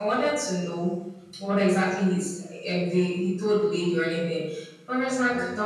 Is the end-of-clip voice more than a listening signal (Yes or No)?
No